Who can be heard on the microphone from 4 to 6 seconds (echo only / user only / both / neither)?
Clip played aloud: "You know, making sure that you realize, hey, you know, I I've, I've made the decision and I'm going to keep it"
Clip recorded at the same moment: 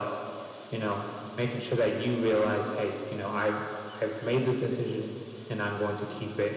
echo only